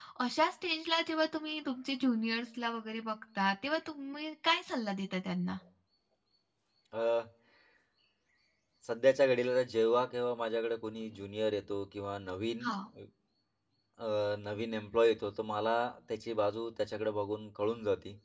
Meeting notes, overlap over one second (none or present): none